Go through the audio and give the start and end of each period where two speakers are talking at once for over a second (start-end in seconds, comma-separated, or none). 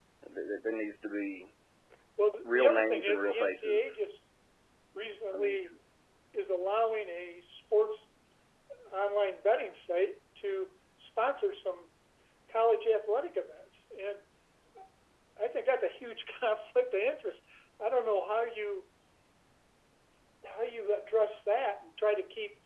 2.4-4.0